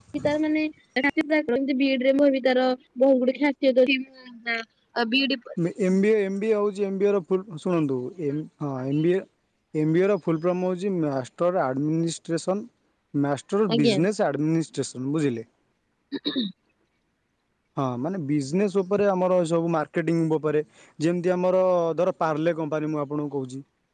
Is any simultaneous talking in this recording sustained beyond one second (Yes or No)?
No